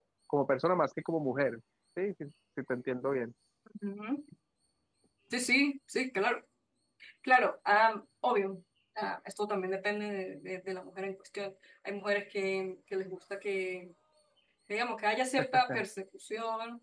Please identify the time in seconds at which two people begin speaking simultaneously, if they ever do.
none

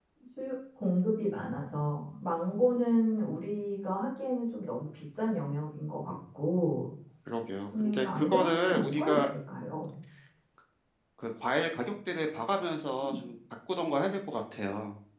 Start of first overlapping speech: 7.8 s

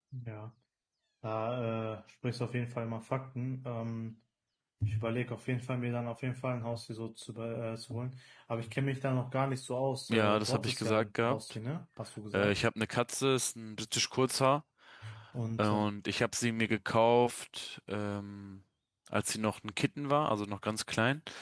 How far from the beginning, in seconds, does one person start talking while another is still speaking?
10.1 s

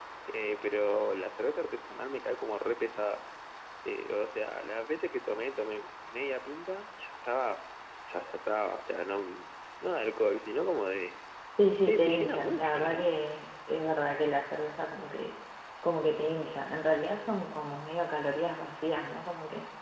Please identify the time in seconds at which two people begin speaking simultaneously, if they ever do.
11.7 s

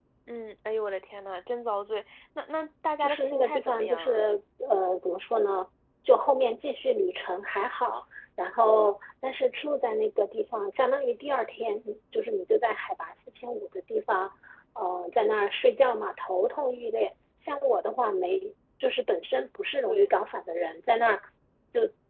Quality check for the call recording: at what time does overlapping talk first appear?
3.0 s

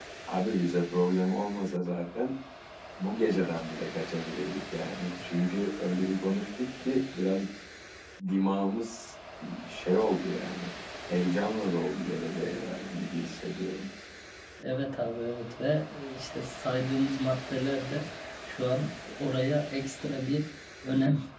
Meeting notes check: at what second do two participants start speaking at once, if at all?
none

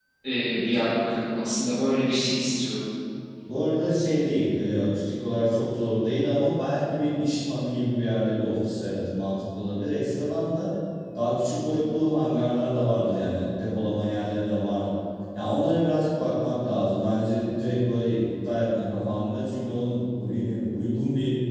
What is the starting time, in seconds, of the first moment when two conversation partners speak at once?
none

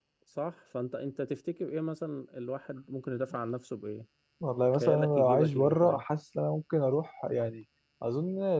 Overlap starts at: 4.8 s

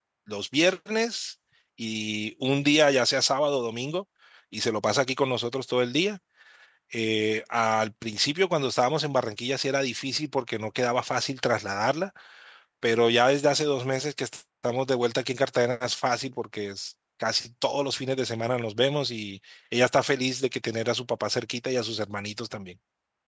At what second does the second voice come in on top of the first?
none

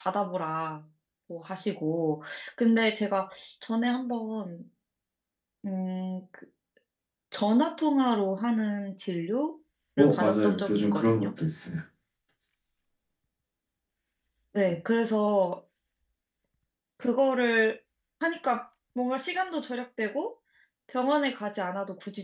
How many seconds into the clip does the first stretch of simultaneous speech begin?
10.0 s

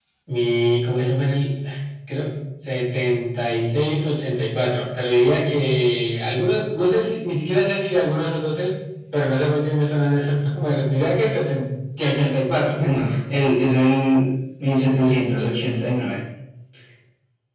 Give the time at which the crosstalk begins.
none

